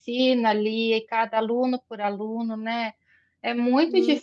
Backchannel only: Yes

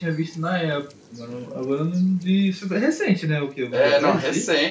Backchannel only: No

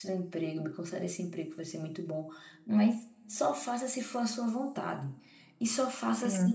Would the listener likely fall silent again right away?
Yes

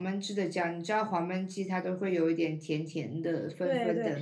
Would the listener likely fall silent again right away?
No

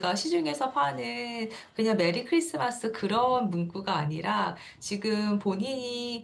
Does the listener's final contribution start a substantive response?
No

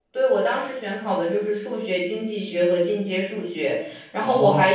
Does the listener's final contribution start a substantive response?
No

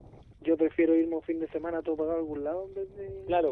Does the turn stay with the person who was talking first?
No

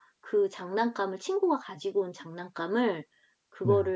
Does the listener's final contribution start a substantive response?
No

